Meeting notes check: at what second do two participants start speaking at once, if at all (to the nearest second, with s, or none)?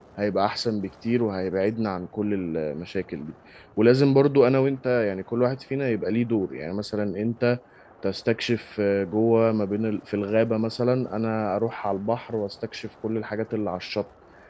none